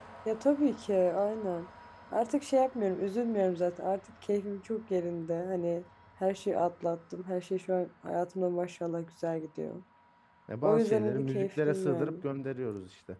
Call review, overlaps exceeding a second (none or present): present